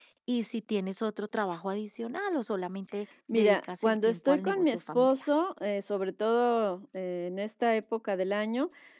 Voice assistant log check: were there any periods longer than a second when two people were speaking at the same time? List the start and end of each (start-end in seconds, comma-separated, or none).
3.3-5.3